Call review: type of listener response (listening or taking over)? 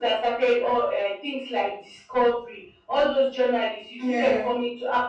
listening